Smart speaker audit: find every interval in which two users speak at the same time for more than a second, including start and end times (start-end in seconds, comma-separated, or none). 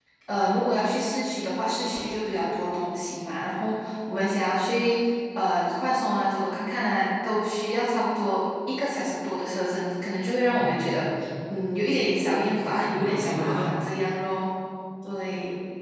12.4-13.6